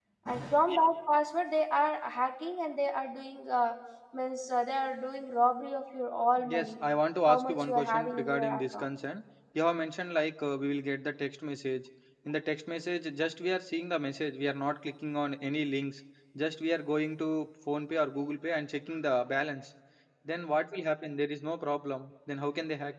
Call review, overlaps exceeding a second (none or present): present